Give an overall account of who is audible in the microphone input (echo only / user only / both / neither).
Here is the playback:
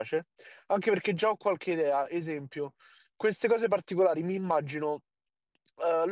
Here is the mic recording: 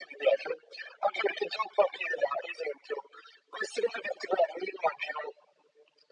echo only